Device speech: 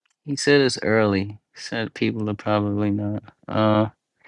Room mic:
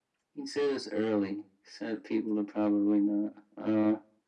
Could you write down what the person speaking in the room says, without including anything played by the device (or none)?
none